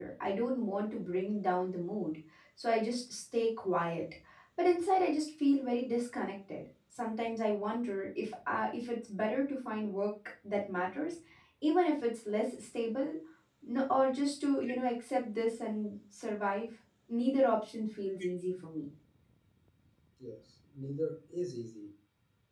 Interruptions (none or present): none